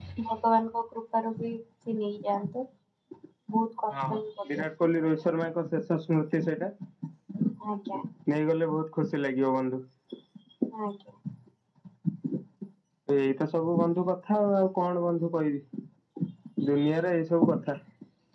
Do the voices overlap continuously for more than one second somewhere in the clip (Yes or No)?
No